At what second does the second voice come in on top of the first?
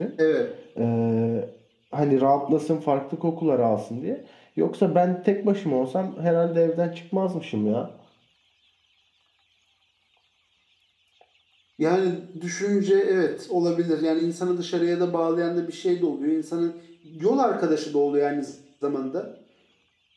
none

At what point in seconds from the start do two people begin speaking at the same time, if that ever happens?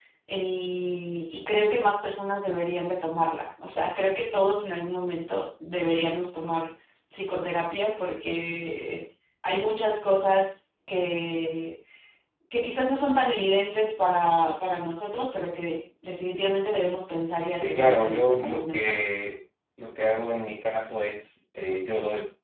18 s

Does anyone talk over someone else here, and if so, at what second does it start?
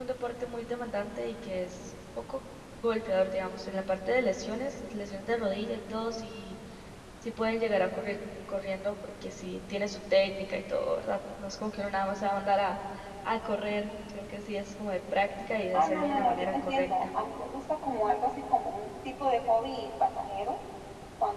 16 s

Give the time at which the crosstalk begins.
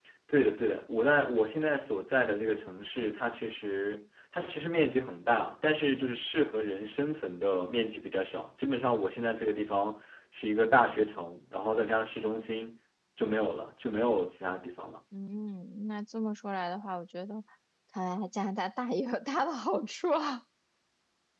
none

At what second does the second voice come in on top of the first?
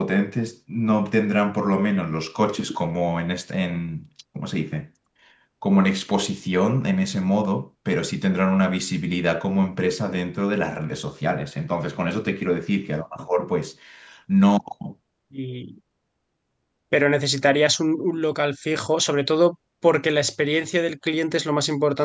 none

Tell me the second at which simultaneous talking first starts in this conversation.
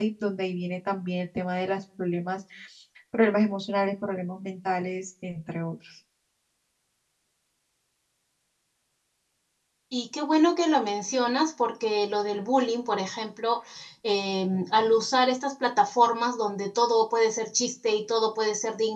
none

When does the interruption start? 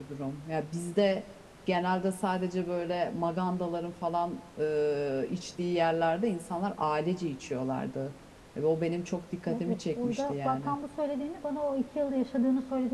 9 s

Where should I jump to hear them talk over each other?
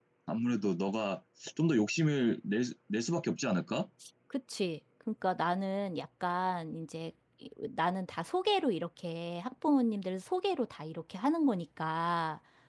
none

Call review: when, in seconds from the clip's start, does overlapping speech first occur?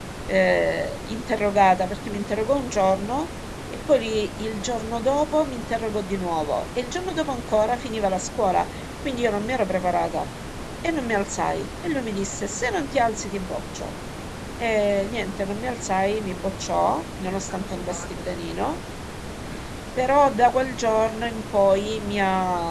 18 s

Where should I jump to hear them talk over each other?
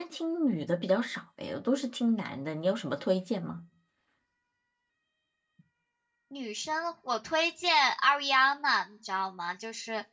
none

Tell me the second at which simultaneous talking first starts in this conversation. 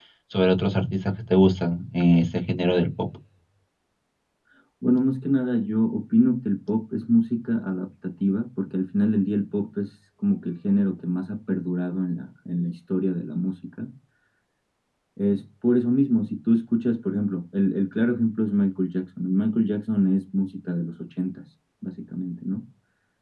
none

